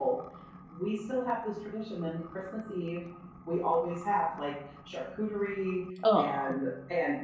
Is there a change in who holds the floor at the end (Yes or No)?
No